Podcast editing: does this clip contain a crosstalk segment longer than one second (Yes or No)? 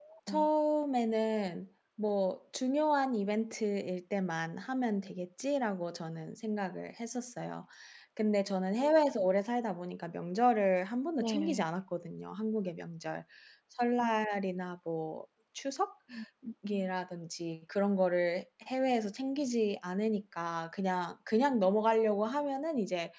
No